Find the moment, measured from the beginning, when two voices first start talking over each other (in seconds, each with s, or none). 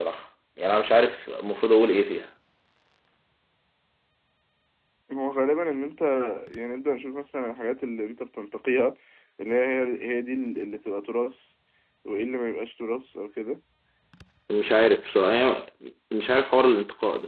none